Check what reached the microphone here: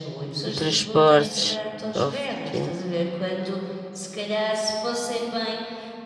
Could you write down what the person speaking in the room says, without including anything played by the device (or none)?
Em transportes, óbvio, é.